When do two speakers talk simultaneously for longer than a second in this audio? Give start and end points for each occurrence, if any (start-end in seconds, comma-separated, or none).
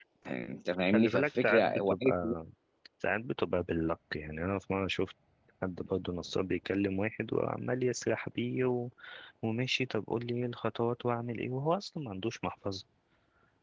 0.9-2.3